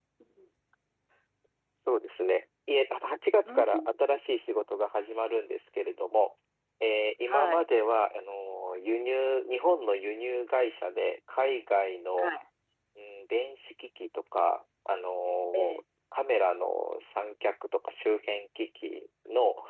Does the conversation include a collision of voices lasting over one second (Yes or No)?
No